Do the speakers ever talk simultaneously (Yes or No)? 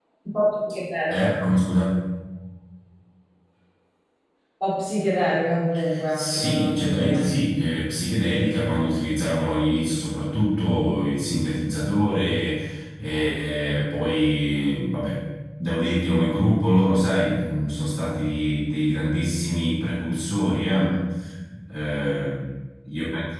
Yes